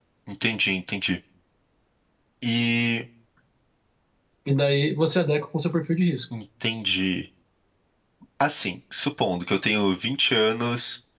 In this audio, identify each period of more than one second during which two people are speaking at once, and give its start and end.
none

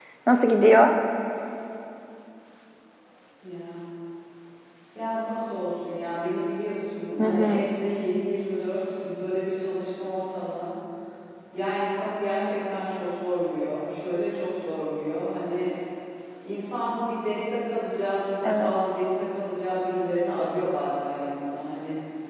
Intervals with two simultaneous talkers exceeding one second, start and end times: none

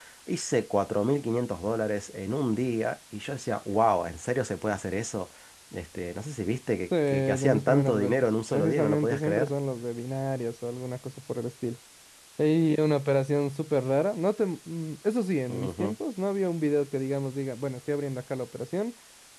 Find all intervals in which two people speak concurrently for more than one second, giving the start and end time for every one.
7.1-9.5

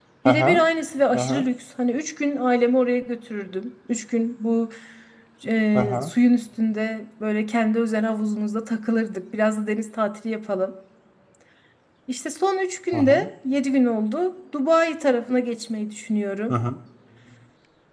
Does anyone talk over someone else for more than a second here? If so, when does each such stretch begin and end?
none

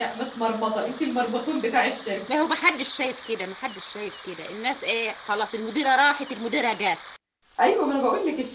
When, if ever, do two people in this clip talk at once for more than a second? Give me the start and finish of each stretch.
none

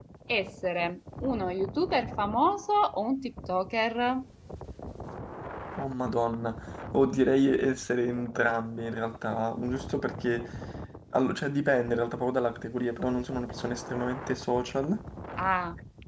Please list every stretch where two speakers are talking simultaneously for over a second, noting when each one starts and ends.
none

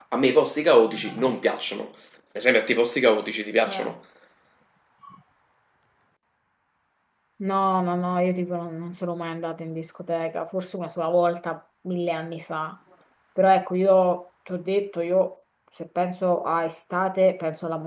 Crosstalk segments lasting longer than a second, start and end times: none

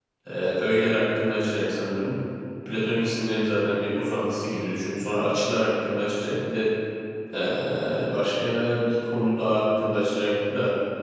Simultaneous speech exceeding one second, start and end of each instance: none

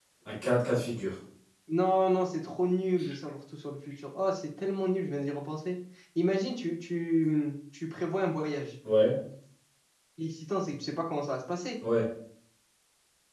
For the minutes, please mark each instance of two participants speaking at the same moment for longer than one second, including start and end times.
none

